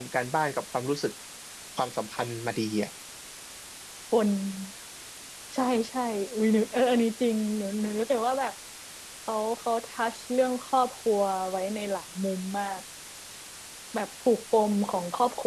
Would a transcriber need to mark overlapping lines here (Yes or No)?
No